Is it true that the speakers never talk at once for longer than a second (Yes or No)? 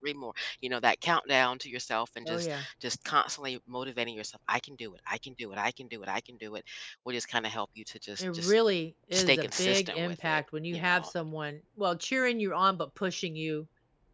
No